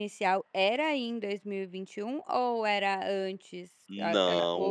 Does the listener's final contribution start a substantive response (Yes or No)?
Yes